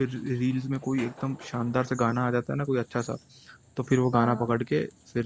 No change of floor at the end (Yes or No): Yes